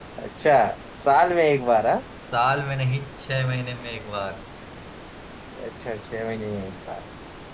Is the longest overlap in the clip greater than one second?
No

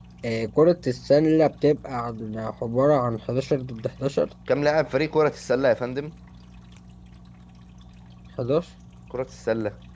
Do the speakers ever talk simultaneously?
No

